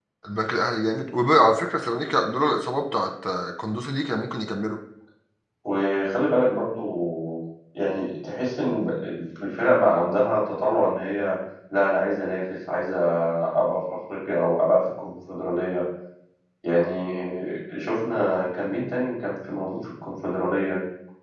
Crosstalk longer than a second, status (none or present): none